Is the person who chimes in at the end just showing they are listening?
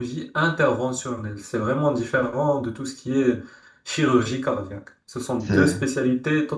Yes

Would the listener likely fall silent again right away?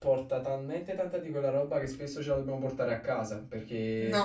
Yes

